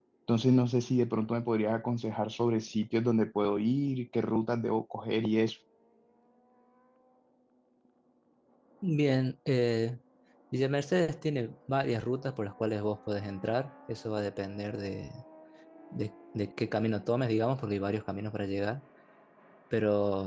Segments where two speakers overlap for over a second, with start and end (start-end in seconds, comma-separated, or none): none